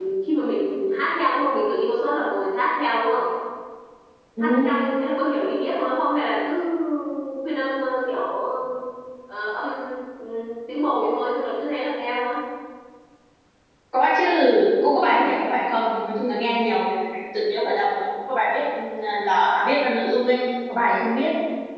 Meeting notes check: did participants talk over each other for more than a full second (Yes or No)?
No